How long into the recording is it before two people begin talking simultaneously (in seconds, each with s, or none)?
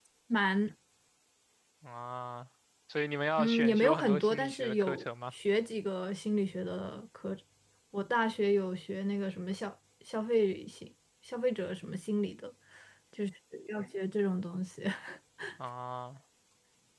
3.4 s